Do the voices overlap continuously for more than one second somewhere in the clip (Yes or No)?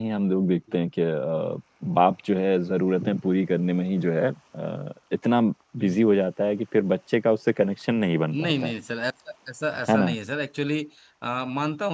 No